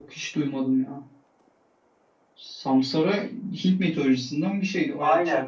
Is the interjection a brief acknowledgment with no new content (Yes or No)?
No